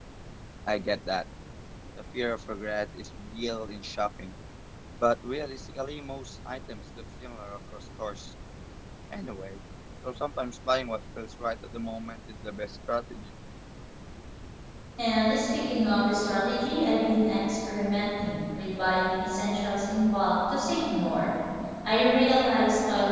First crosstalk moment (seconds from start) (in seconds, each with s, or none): none